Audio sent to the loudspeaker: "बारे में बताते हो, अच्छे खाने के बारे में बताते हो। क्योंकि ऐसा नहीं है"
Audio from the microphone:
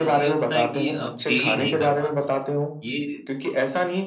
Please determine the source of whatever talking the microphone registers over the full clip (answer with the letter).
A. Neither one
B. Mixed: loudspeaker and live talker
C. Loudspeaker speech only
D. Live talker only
B